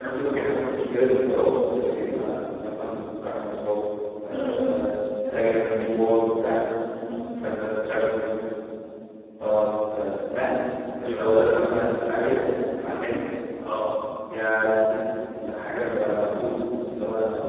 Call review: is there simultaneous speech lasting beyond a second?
No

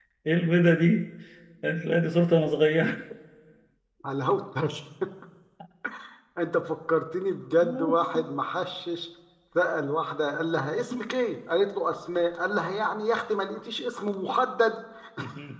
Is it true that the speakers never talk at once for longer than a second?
Yes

